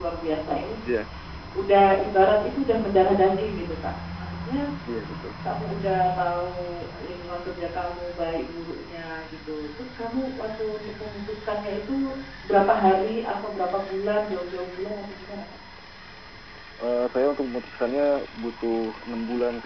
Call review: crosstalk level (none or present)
none